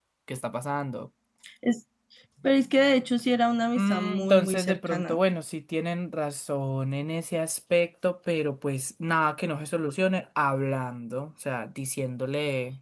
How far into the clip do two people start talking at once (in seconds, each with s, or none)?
3.8 s